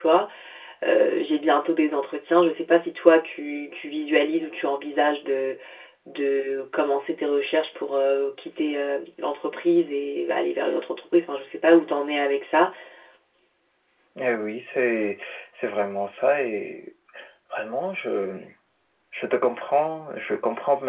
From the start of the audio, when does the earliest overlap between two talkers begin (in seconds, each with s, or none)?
none